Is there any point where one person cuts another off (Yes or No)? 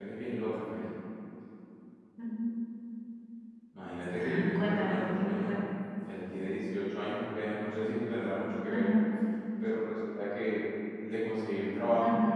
Yes